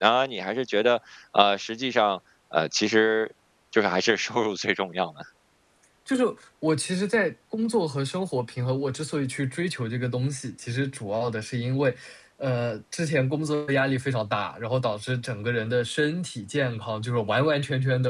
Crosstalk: none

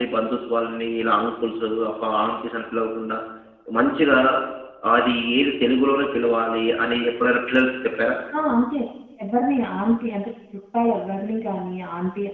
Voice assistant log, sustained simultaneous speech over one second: none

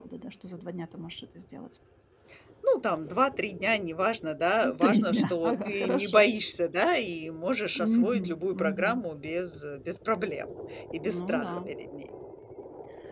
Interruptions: present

